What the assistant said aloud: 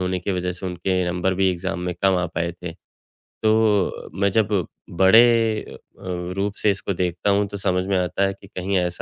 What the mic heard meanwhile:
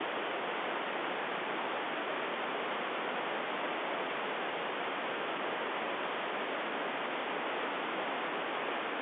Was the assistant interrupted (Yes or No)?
No